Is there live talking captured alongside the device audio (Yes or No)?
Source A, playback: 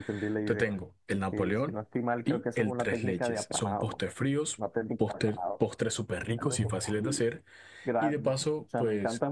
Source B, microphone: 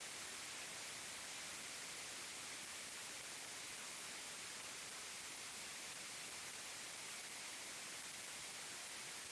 No